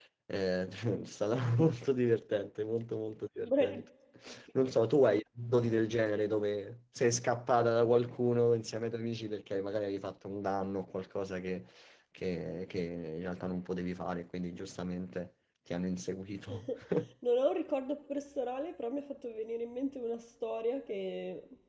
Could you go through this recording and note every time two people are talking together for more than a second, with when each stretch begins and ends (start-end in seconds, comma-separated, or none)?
none